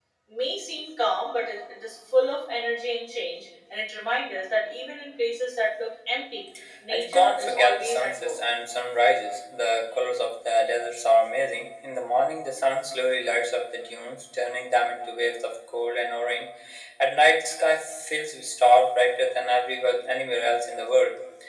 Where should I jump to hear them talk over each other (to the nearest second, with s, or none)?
7 s